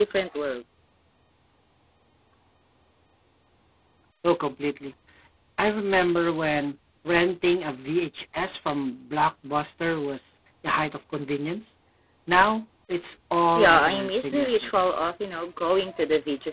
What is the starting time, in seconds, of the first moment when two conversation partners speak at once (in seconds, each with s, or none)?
13.6 s